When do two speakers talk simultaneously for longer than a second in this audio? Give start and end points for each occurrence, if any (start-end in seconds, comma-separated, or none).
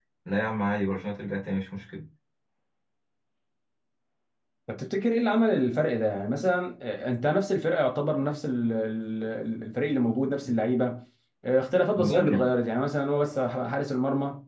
none